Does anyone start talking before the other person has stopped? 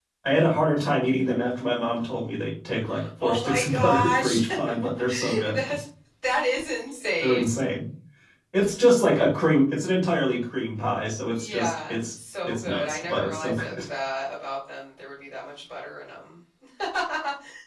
Yes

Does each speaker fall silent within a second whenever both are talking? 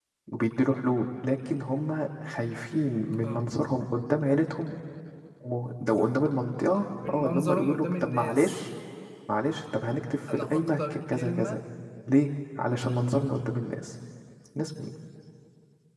No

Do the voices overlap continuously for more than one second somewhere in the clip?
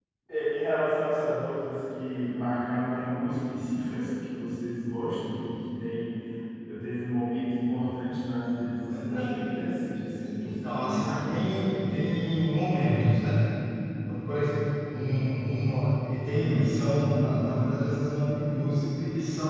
Yes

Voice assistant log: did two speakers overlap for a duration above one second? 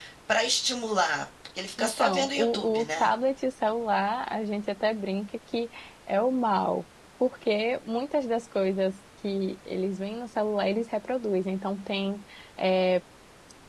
Yes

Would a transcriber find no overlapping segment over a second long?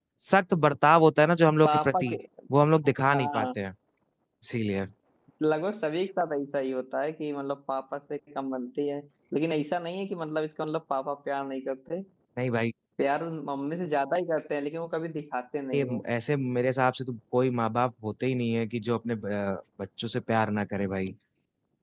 Yes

